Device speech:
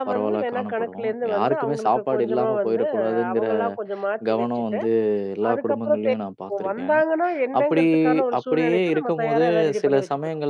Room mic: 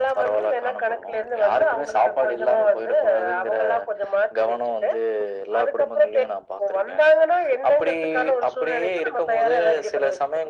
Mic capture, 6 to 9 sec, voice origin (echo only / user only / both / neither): echo only